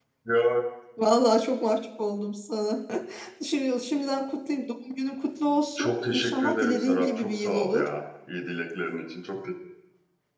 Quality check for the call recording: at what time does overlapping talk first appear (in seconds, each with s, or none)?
5.8 s